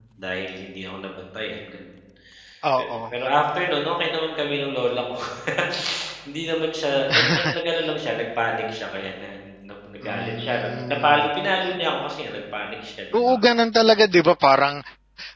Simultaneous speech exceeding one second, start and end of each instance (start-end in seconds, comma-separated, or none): 10.0-11.3